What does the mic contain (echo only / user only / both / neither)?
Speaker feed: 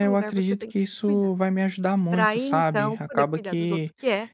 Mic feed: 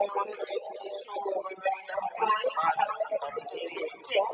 echo only